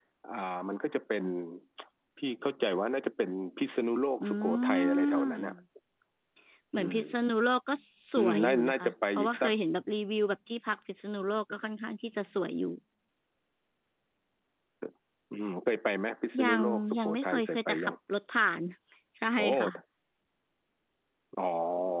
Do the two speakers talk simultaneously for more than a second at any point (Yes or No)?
Yes